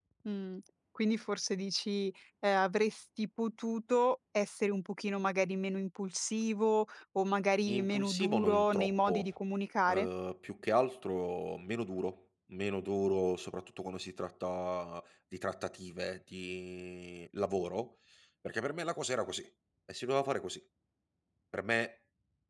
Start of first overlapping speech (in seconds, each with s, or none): 7.7 s